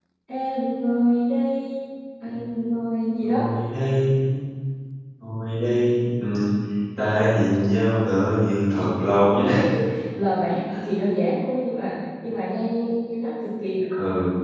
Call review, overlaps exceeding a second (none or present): none